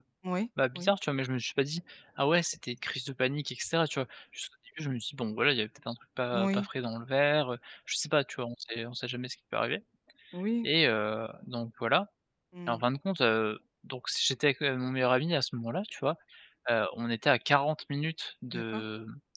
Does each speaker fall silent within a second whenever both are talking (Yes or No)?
Yes